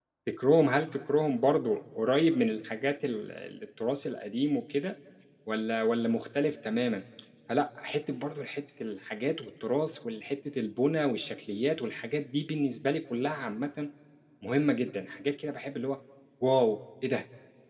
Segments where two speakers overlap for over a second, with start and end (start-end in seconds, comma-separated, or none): none